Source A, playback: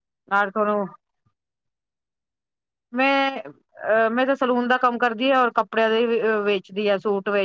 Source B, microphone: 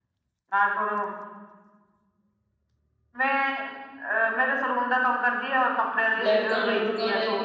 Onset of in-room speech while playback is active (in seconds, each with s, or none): 6.2 s